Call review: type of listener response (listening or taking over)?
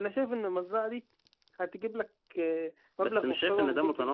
taking over